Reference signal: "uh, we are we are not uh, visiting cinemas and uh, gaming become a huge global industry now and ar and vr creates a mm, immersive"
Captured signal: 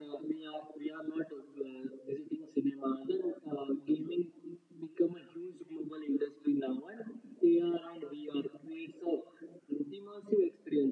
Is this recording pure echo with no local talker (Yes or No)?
Yes